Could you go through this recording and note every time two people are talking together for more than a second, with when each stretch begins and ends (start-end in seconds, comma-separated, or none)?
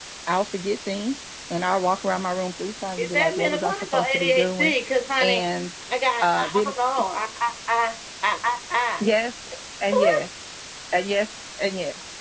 3.0-4.7